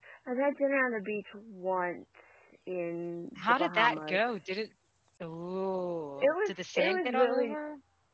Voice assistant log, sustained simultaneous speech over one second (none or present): present